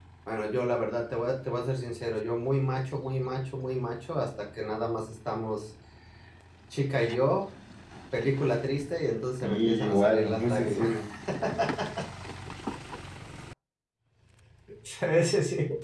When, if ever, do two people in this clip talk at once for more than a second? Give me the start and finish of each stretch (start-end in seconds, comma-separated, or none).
9.4-10.9